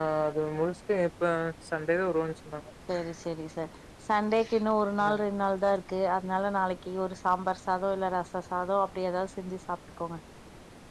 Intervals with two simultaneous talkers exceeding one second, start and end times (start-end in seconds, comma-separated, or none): none